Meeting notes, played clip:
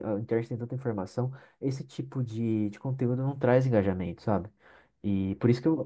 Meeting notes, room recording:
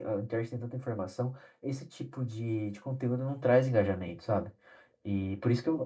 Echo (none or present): present